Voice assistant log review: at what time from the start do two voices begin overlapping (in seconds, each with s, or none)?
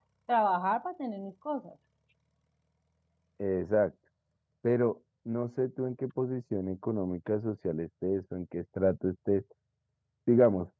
none